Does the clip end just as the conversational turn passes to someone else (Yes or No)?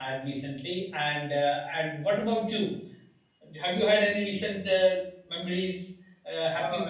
Yes